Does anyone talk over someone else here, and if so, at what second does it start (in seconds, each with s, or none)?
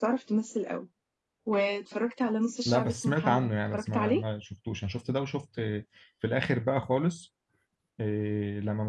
2.6 s